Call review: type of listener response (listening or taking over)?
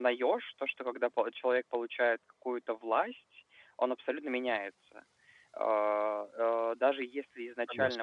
listening